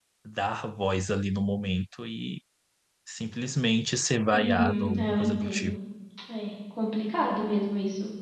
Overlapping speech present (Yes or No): Yes